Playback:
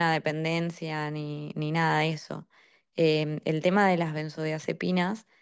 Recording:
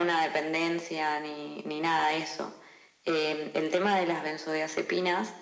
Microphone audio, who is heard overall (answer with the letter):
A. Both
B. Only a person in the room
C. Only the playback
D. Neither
C